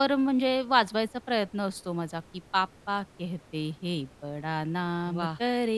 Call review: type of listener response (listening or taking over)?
listening